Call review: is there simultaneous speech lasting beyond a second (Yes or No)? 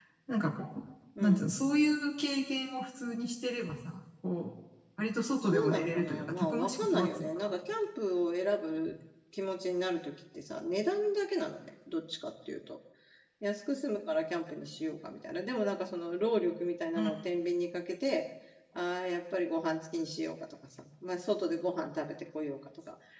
Yes